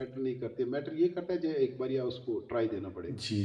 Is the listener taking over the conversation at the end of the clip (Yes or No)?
Yes